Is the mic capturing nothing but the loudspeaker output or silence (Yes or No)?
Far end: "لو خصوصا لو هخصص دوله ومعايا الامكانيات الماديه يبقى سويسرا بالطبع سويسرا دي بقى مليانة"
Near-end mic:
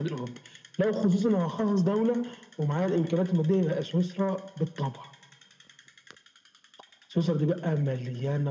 Yes